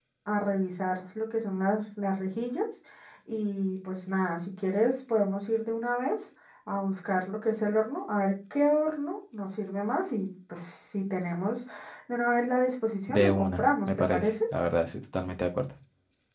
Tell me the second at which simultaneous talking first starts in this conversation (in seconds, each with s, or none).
13.1 s